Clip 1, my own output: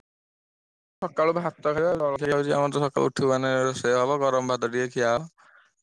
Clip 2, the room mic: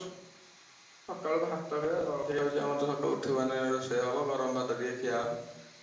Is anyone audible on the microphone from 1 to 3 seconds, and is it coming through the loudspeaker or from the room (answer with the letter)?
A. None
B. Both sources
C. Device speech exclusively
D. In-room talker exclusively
C